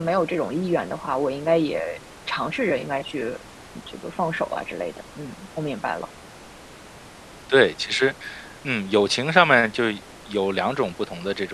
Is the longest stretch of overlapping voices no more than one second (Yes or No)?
Yes